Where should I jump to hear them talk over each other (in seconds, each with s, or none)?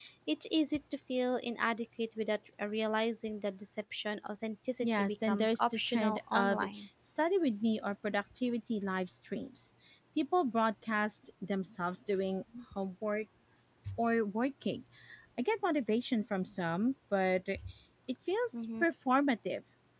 4.8 s